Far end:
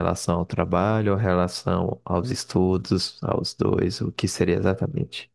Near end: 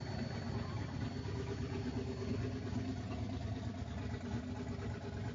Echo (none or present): none